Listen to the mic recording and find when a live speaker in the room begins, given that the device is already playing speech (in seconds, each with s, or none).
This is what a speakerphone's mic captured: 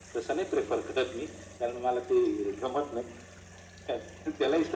none